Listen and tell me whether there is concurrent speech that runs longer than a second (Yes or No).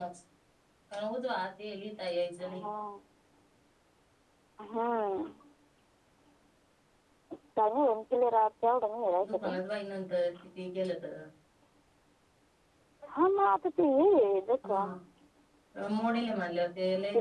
No